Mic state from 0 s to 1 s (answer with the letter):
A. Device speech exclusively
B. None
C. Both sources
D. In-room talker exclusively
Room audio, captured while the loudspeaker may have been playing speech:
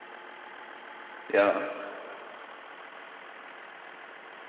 B